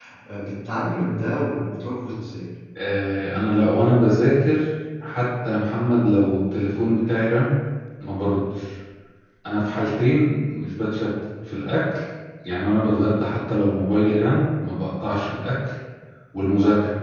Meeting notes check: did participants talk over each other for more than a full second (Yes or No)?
No